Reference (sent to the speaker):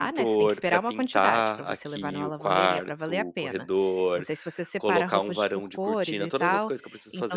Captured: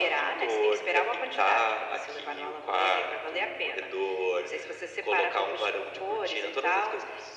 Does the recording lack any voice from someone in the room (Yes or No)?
Yes